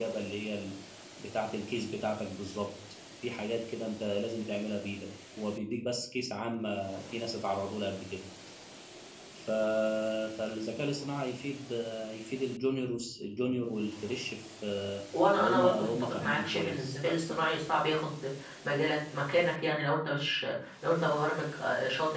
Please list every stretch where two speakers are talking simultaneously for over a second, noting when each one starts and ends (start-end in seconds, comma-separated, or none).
15.4-16.9